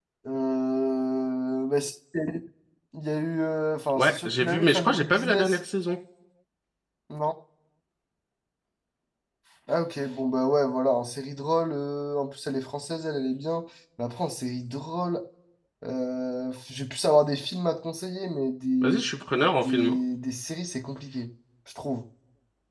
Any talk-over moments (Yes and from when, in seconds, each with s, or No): Yes, from 4.0 s